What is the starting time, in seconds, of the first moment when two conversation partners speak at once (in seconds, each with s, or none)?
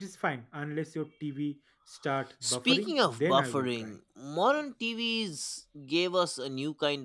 2.4 s